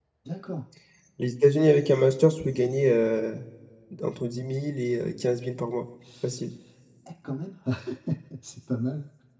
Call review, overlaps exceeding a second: none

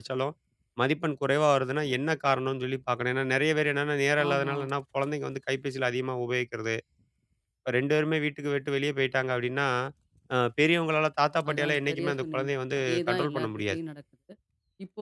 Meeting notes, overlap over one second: present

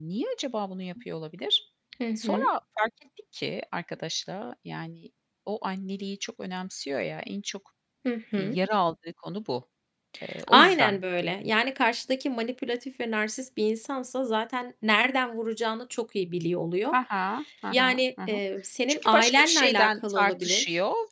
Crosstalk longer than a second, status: present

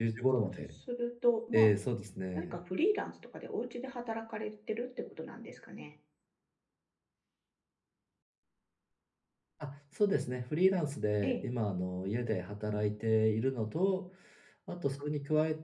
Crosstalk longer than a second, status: none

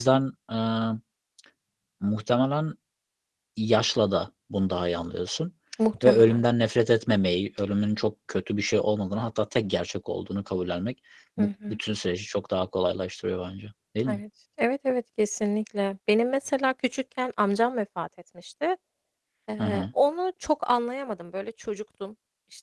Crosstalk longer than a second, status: none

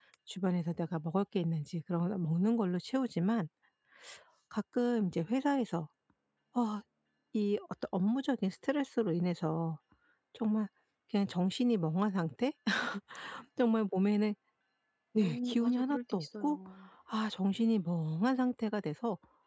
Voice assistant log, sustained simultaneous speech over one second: present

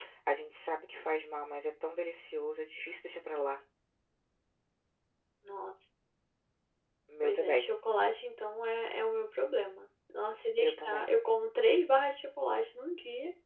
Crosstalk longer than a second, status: none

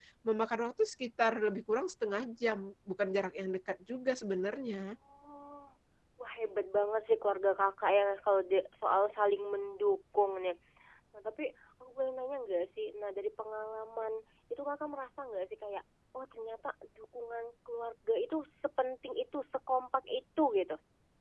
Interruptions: none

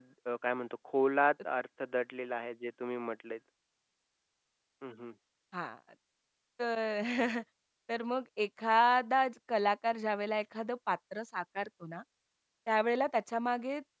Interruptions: none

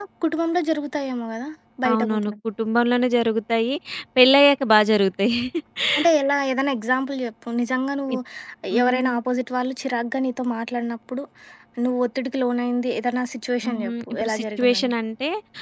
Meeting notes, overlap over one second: present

